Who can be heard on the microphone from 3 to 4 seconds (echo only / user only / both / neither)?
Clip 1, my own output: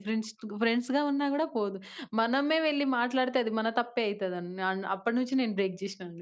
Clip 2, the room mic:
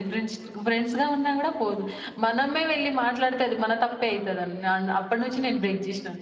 echo only